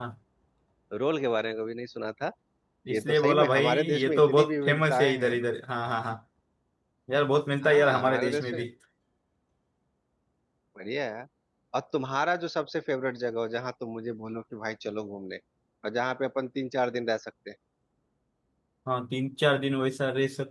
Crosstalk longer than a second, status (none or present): present